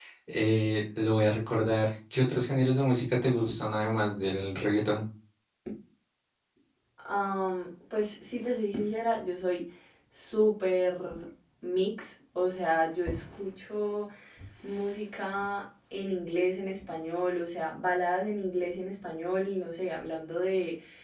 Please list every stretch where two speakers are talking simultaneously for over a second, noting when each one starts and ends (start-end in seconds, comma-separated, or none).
none